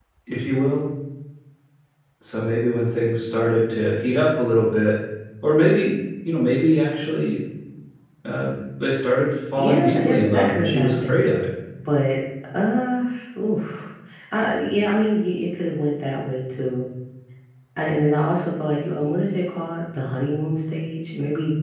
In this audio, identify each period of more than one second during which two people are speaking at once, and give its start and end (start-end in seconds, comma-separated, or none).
9.6-11.2